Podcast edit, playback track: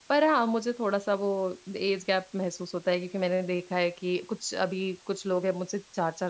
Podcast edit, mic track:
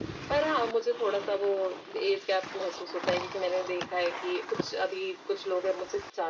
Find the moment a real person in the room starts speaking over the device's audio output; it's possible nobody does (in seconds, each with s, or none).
none